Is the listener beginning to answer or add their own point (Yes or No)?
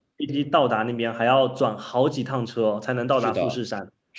Yes